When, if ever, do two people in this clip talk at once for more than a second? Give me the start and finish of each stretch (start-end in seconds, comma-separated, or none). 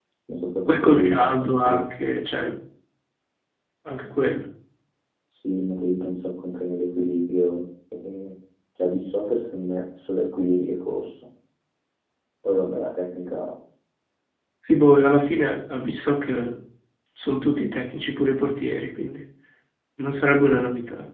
0.7-1.9